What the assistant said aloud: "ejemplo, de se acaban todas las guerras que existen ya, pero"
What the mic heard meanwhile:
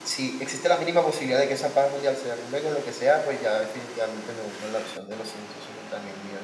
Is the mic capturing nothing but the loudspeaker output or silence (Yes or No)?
No